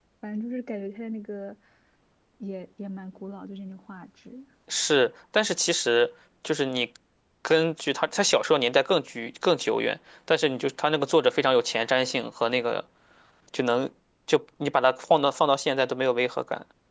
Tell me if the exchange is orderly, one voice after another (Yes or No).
Yes